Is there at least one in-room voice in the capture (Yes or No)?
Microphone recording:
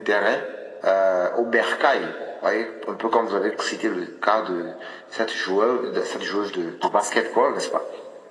No